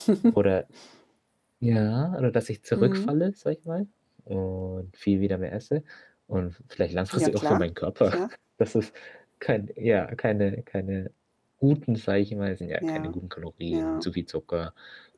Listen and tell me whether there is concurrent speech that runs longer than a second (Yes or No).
No